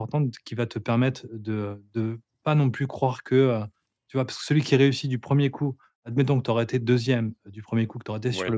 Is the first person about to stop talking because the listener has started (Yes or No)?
No